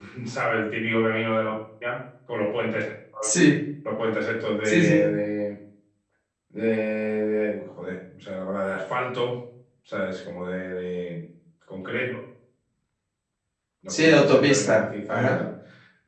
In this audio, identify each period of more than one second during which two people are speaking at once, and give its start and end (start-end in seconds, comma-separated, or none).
13.9-15.4